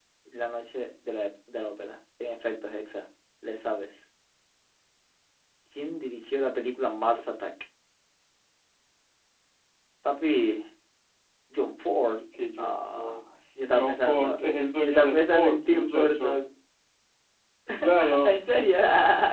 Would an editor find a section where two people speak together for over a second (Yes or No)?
Yes